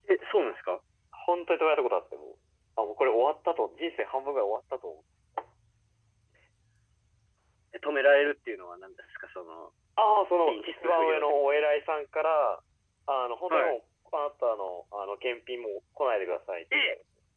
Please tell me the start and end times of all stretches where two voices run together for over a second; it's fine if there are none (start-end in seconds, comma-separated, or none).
10.4-11.7